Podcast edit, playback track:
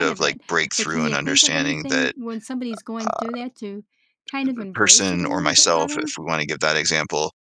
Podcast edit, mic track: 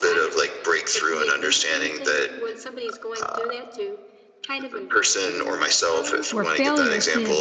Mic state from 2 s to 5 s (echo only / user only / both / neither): echo only